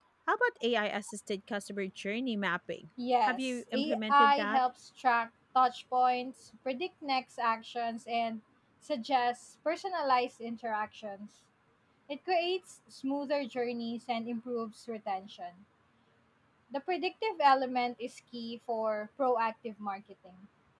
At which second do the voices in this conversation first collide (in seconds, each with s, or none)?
3.2 s